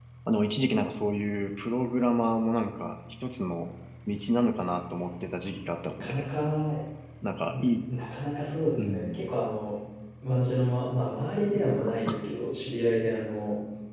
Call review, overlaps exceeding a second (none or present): none